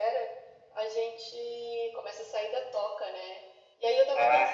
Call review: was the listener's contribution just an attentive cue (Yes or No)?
Yes